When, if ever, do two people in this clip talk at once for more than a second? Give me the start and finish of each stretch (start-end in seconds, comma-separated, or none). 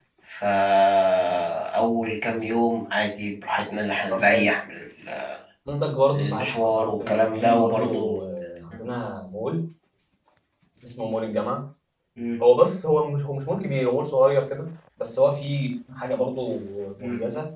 6.1-8.2